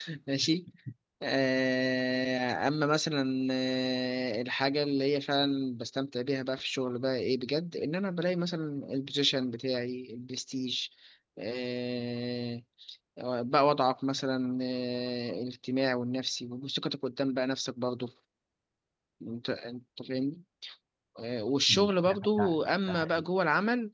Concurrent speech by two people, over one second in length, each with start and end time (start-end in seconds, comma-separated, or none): 21.7-23.2